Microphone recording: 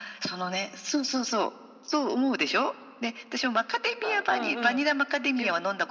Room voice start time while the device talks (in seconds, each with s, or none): 4.0 s